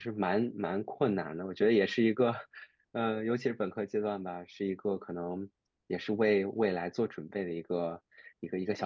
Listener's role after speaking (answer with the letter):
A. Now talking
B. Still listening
A